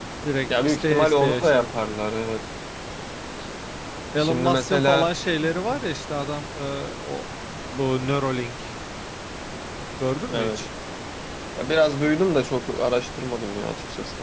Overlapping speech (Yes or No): Yes